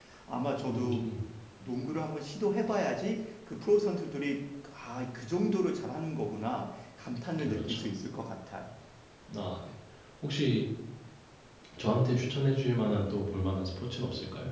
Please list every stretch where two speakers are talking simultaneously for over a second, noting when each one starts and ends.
none

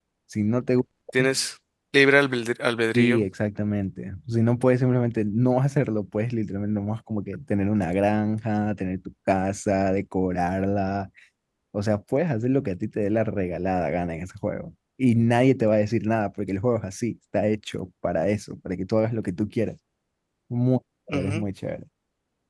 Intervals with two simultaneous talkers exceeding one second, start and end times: none

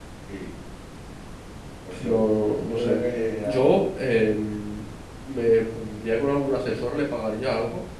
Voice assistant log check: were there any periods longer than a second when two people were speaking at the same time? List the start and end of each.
none

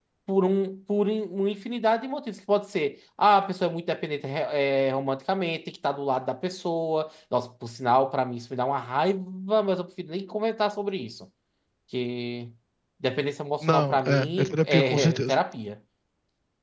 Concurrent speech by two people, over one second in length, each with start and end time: 13.6-15.4

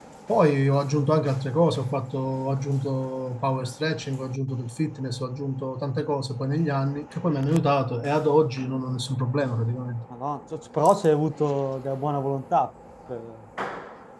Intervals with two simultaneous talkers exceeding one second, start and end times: none

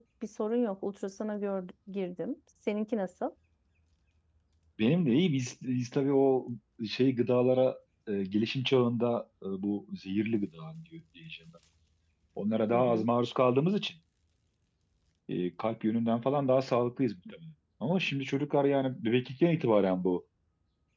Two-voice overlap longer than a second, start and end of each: none

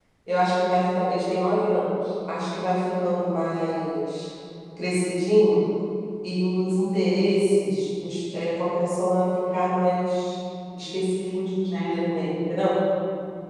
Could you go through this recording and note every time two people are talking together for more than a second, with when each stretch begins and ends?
none

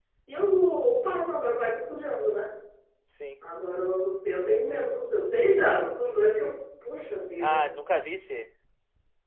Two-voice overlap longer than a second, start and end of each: none

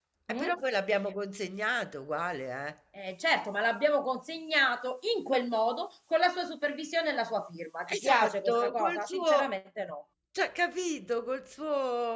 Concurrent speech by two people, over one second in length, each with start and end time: 7.9-9.5

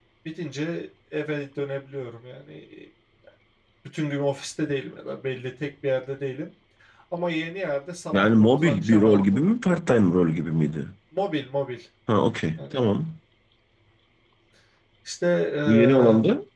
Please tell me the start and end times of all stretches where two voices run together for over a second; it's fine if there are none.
8.1-9.4

